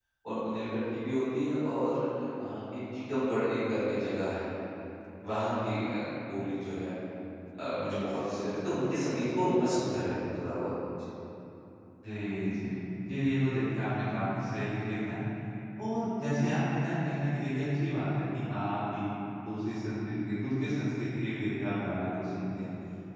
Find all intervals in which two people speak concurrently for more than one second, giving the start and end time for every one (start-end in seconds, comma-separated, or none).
none